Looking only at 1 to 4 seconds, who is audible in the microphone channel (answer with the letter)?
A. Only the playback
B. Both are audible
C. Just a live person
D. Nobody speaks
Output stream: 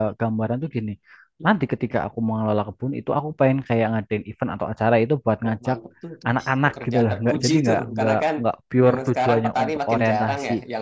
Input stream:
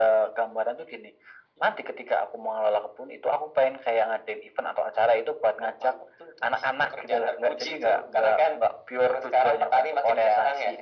A